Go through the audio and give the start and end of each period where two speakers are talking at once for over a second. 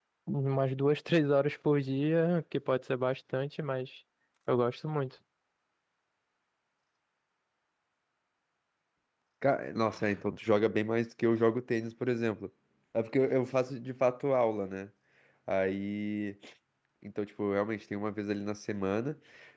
none

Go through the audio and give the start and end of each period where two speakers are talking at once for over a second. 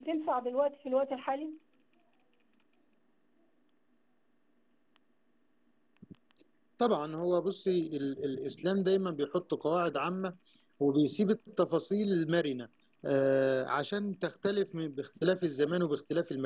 none

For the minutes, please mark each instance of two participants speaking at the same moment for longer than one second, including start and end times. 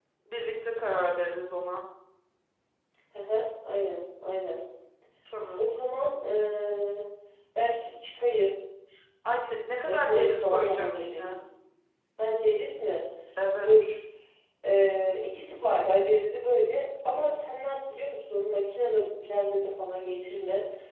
9.8-11.3

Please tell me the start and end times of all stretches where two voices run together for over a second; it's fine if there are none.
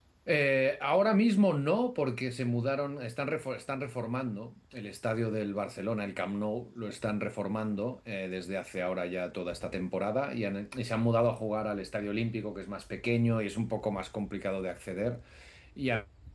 none

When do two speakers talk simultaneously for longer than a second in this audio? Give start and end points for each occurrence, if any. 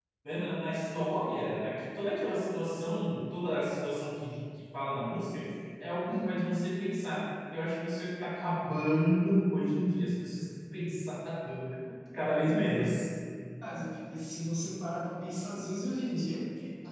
none

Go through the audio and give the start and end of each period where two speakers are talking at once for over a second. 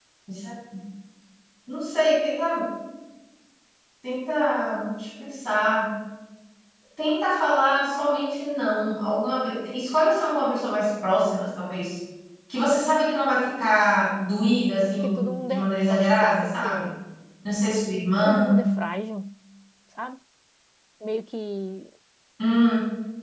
15.0-16.9

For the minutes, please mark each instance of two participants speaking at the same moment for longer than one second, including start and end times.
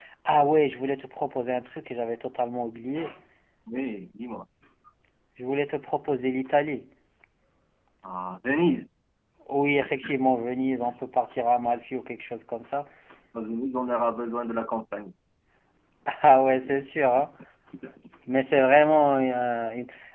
none

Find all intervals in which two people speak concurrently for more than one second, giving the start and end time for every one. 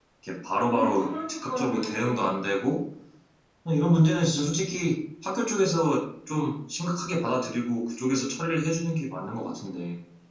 0.7-2.3

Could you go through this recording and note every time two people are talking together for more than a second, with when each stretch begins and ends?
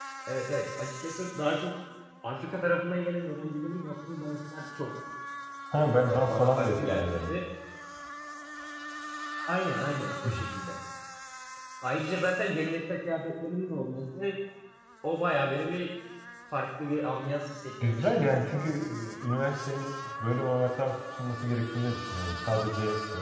6.1-7.4

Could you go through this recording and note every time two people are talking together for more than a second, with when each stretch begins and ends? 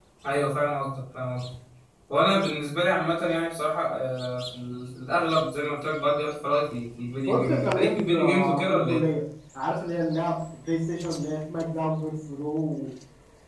7.3-9.1

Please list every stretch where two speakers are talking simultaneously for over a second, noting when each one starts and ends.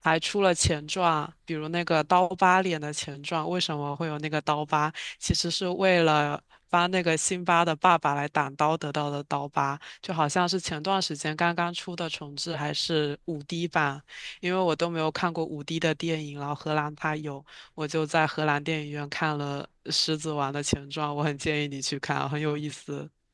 none

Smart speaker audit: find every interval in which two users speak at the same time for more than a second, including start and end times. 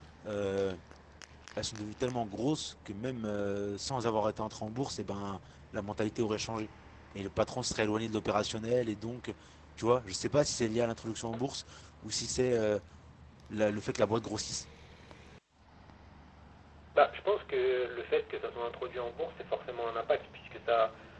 none

